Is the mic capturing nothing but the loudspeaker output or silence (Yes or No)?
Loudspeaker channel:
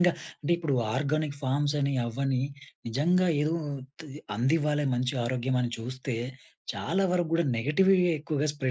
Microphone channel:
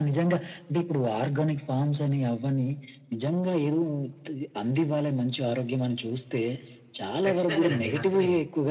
No